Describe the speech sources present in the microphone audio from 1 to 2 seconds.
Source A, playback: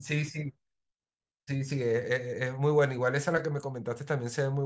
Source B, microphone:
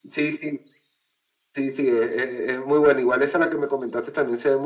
echo only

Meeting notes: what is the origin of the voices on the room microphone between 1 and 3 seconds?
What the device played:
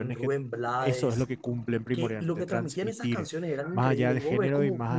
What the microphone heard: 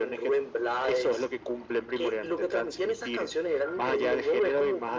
echo only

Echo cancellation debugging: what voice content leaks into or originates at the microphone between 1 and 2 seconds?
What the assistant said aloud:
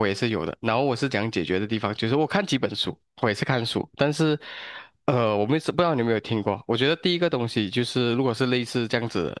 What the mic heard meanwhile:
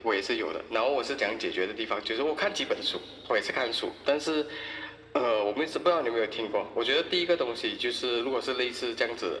echo only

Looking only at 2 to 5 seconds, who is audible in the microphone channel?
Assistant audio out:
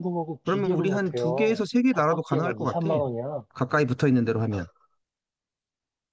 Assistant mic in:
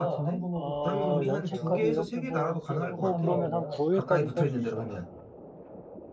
both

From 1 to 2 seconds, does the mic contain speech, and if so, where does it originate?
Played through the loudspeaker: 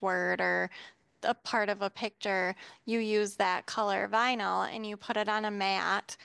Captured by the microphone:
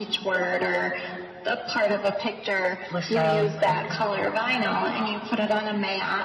echo only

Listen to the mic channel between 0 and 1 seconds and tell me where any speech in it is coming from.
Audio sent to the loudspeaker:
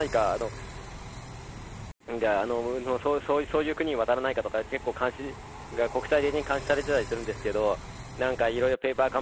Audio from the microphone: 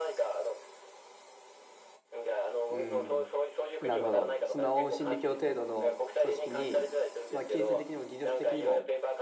echo only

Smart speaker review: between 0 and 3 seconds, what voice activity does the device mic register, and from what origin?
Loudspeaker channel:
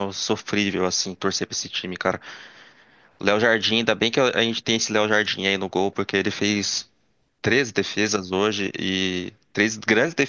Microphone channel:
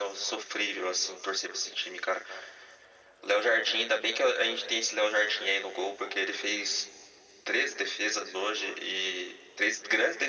echo only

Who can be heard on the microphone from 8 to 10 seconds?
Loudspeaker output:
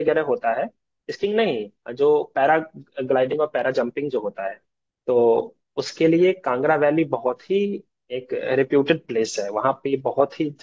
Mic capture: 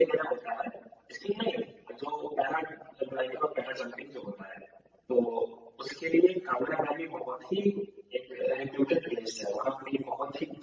echo only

